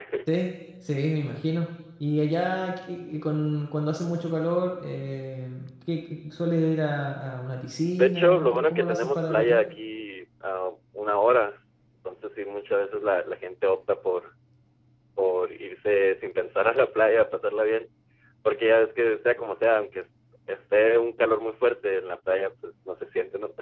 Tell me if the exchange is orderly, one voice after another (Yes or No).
No